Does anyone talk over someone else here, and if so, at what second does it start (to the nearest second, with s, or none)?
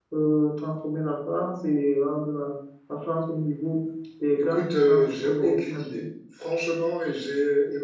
4 s